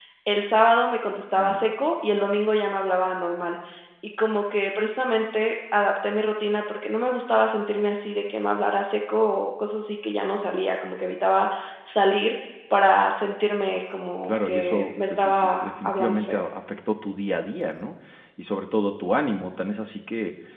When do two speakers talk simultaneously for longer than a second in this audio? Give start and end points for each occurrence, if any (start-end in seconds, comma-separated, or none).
14.2-16.4